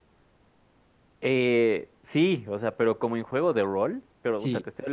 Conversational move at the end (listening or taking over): listening